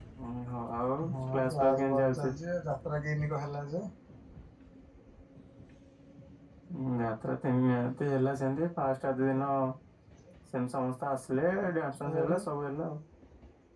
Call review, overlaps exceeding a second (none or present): present